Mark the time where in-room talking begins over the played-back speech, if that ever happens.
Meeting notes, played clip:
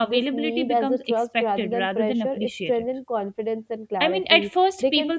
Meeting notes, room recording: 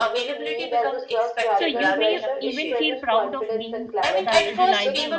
1.5 s

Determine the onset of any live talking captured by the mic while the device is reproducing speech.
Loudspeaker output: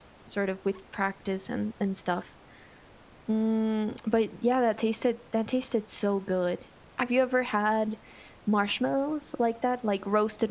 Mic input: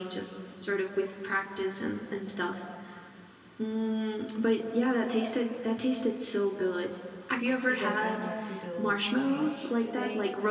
7.5 s

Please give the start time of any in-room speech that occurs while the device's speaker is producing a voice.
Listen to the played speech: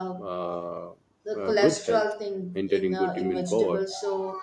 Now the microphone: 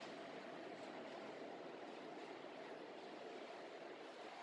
none

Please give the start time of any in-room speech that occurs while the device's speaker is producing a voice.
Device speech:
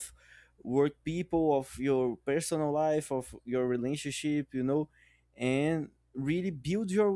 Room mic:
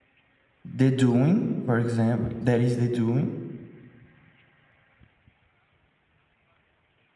0.6 s

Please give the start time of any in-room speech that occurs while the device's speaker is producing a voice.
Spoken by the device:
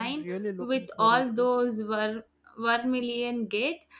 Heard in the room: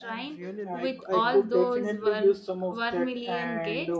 0.6 s

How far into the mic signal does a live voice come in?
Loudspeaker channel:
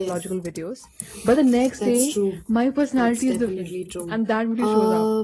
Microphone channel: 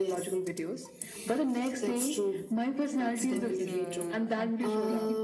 3.2 s

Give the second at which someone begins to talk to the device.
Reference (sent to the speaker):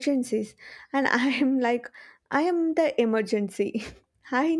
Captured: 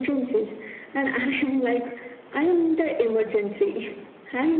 none

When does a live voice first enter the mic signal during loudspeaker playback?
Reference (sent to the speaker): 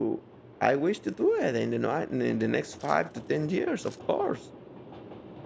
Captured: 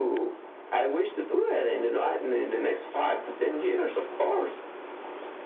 none

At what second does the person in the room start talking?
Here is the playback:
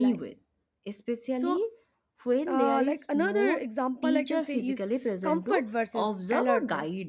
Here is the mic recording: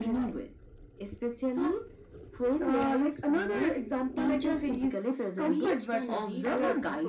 5.4 s

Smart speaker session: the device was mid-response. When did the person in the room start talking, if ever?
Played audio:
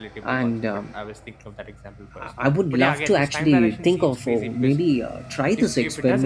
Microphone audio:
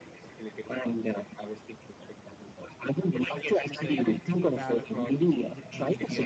3.8 s

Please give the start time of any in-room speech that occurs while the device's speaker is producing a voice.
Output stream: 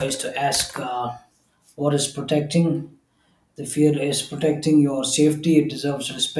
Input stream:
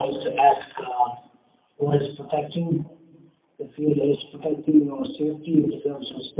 none

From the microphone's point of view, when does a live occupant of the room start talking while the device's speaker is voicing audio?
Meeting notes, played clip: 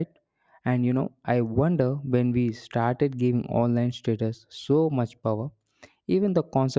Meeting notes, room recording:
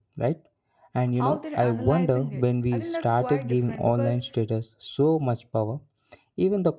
1.1 s

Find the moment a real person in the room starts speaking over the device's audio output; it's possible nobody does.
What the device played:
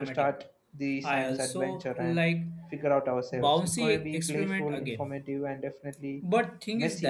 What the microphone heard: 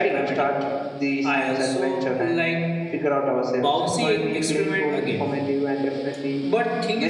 none

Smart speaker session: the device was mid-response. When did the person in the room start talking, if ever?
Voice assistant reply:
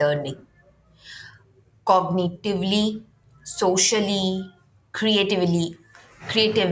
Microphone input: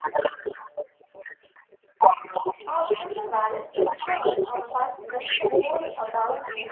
2.7 s

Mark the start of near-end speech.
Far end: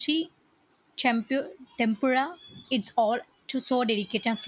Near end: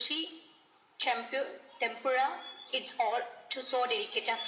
none

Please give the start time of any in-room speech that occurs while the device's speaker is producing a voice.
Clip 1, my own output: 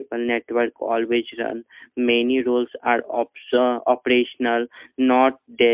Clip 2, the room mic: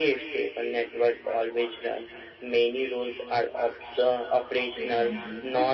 4.7 s

